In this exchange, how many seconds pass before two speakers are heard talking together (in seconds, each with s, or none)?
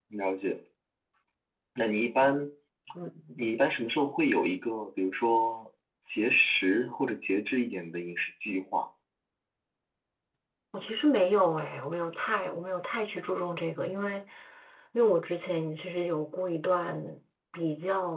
none